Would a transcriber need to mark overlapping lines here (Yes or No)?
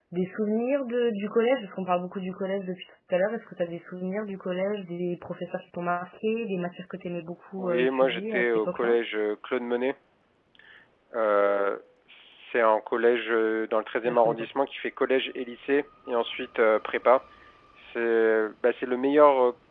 Yes